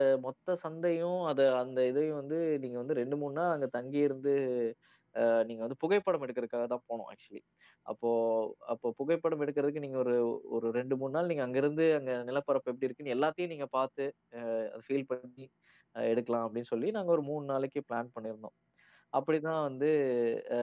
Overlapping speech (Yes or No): No